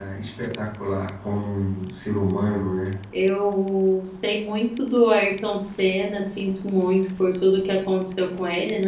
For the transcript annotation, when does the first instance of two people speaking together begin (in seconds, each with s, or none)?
none